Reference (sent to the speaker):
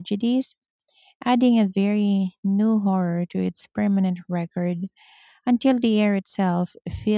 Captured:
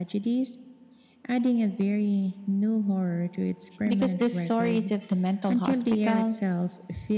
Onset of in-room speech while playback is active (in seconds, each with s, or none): 3.9 s